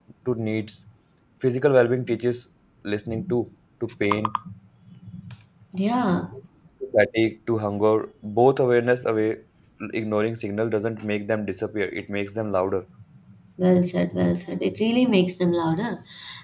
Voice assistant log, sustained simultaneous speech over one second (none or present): none